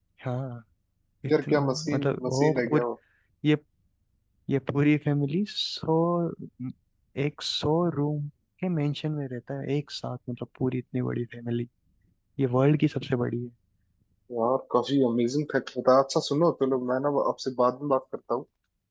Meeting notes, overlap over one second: present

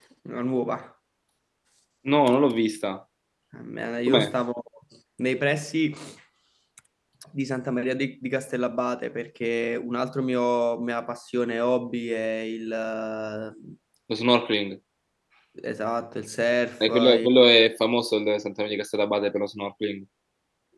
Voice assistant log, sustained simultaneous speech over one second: none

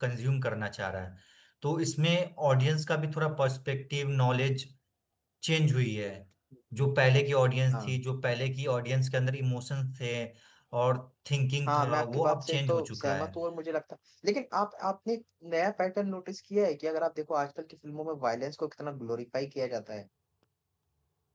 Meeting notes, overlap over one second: present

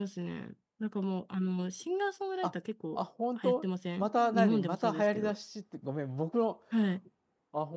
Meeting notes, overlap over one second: present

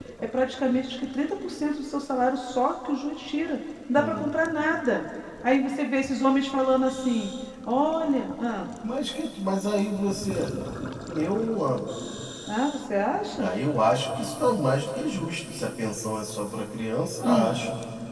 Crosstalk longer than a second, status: none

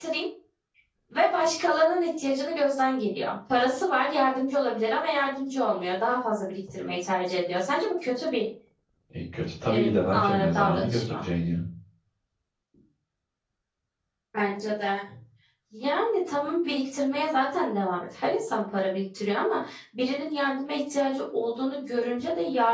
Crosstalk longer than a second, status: present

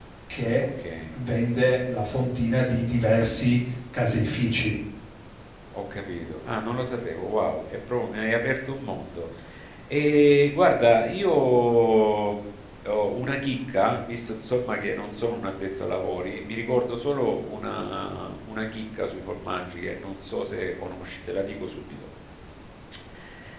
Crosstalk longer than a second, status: none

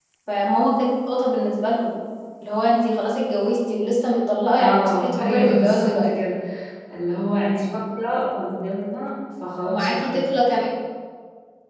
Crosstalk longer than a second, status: present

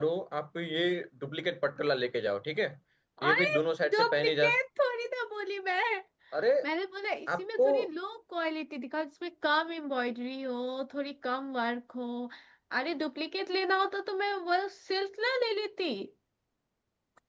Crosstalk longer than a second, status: present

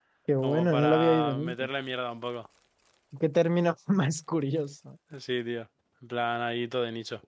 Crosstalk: present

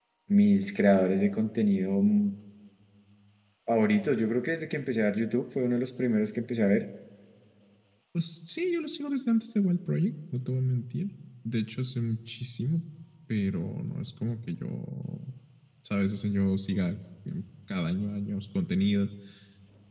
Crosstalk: none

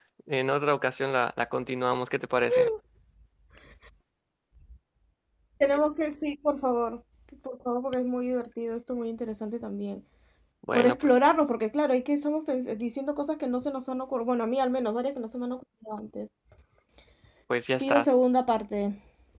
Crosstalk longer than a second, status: none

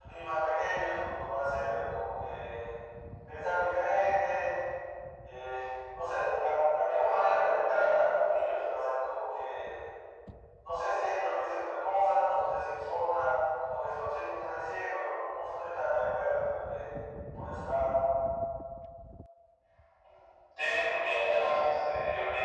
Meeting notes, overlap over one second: none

